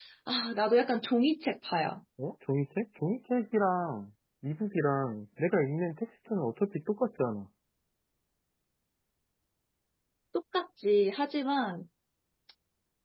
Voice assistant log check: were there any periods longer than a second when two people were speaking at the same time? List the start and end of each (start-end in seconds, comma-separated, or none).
none